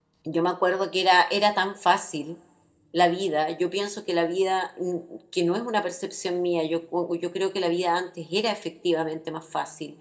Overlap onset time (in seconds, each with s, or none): none